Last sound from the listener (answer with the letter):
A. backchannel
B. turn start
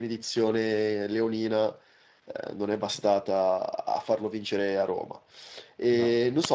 A